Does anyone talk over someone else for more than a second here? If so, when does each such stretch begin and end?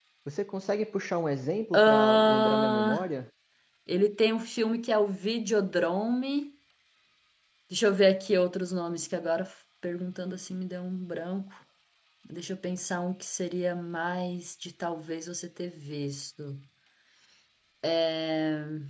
1.7-3.1

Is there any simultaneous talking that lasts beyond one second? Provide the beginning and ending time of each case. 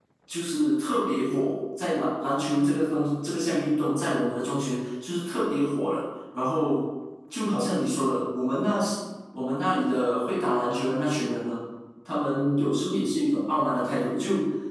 none

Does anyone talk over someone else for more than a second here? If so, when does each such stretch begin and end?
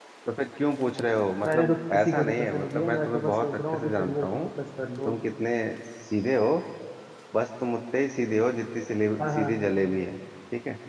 1.4-4.4

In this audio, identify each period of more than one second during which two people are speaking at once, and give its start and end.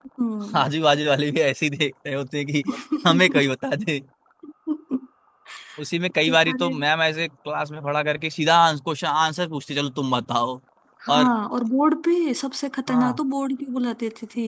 none

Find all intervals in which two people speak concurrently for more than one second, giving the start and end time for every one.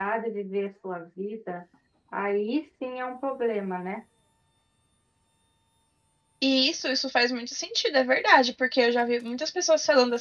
none

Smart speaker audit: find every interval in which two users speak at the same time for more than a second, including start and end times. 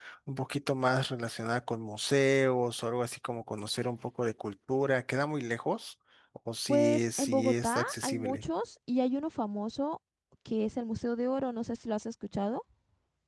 6.7-8.4

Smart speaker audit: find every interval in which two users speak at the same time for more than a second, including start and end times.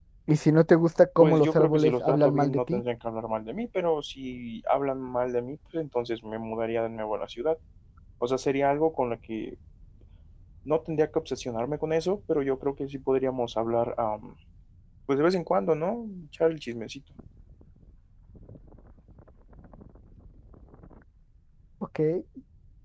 1.2-2.8

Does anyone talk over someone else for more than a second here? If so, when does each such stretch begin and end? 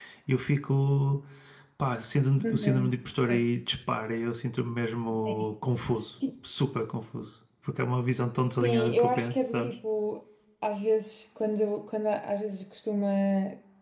8.4-9.7

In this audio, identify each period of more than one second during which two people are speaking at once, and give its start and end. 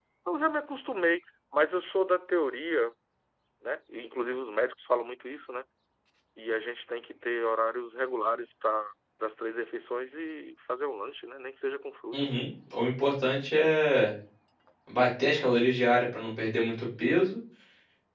none

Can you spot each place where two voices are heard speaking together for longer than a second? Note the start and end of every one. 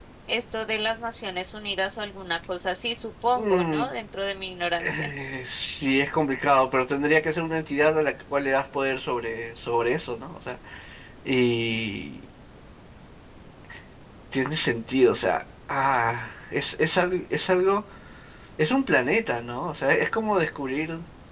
none

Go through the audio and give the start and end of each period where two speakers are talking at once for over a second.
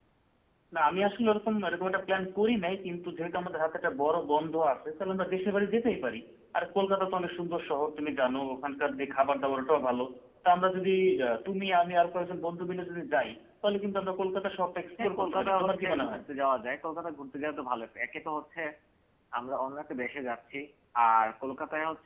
15.0-16.2

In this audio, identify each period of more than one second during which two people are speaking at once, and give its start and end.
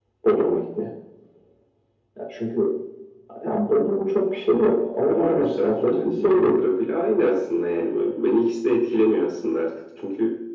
5.1-6.6

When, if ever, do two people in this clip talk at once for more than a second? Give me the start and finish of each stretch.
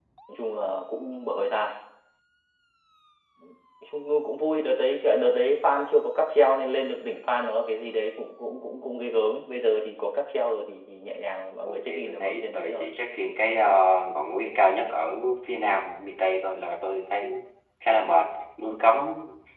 11.7-12.9

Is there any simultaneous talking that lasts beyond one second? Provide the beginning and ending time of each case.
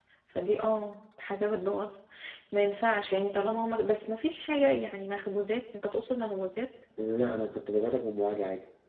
none

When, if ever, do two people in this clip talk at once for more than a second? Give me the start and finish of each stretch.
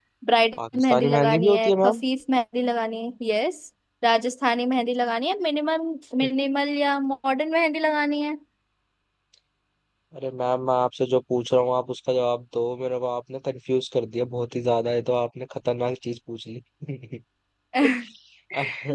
0.7-2.0

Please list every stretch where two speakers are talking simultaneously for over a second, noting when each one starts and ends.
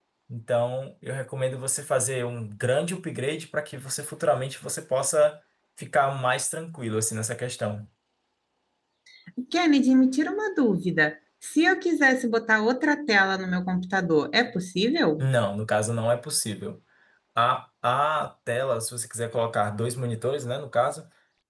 none

